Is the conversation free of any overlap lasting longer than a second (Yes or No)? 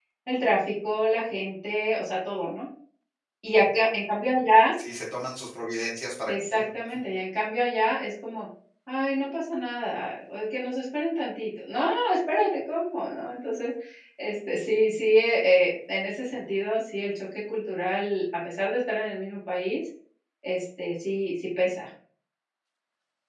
Yes